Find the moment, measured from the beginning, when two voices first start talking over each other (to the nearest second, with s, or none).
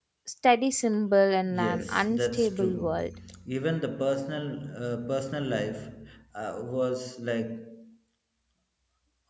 1 s